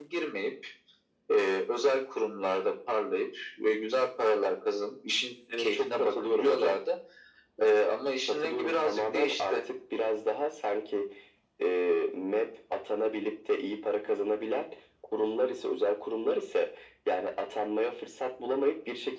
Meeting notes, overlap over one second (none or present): present